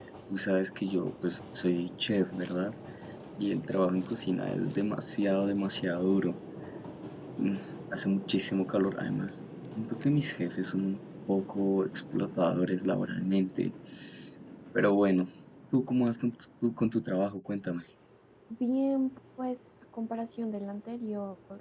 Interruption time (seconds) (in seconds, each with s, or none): none